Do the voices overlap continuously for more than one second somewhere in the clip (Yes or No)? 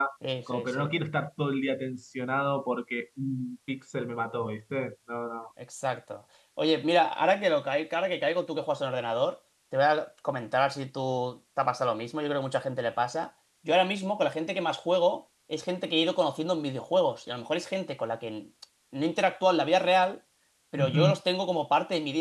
No